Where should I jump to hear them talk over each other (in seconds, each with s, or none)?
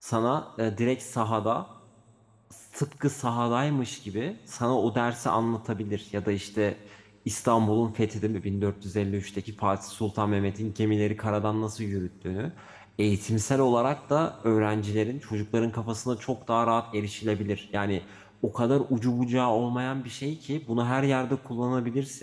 none